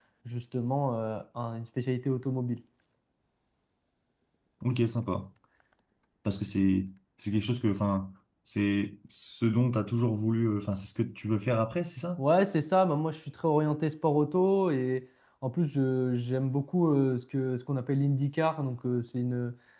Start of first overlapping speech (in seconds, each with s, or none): none